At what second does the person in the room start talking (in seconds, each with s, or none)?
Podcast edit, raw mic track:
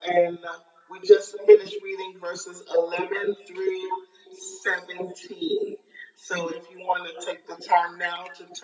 none